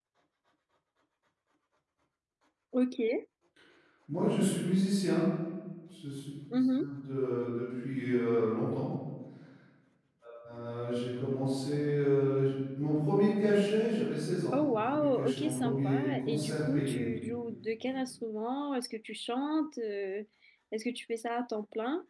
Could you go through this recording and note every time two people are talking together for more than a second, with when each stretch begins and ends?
14.5-17.0

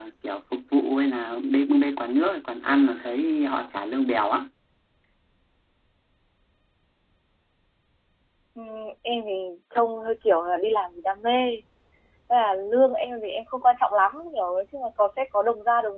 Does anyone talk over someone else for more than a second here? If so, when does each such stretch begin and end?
none

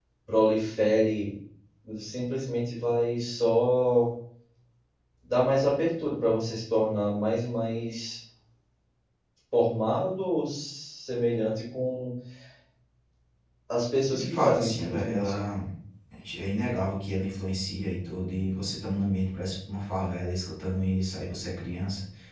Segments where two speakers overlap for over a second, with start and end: 14.1-15.4

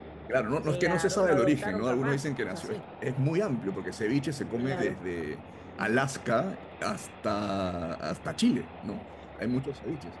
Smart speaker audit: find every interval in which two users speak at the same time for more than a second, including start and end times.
0.7-2.8

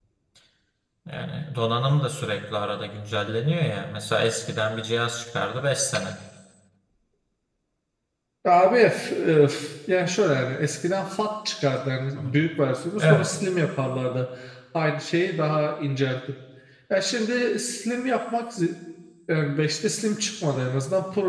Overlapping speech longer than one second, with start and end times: none

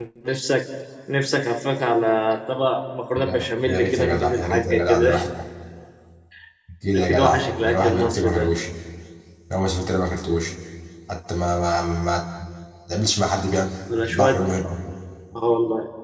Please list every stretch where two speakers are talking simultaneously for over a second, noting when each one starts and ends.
3.2-5.1, 6.9-8.5

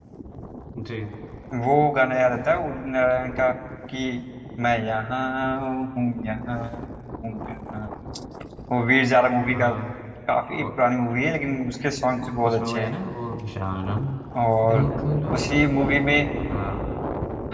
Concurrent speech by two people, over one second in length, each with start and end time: none

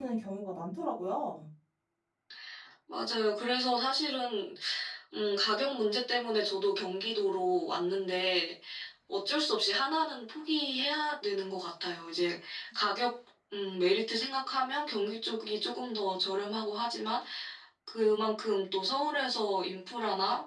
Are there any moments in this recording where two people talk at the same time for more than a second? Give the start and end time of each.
none

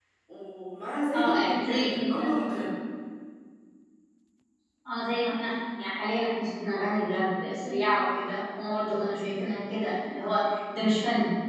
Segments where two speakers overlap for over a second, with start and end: 1.1-2.6

